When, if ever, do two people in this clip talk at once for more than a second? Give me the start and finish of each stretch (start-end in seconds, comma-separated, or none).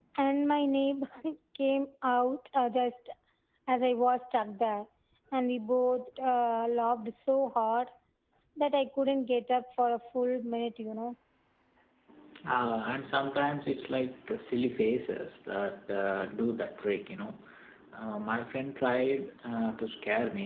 none